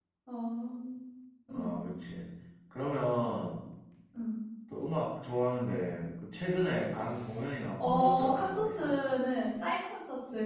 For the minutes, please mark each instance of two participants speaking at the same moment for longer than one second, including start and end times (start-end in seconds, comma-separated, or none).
7.8-9.0